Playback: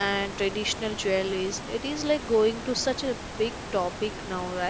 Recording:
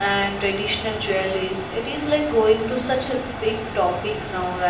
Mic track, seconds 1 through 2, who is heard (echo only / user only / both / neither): echo only